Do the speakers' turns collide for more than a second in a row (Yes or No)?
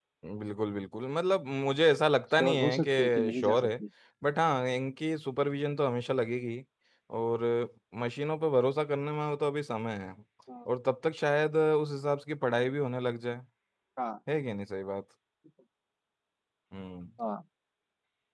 Yes